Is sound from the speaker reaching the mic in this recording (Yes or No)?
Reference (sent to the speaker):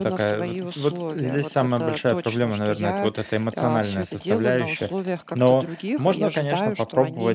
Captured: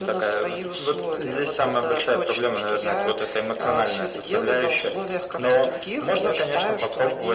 Yes